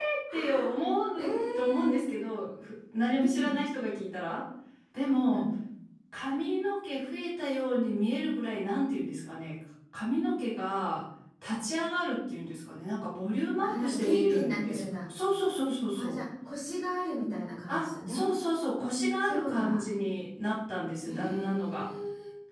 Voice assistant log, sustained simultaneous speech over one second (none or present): present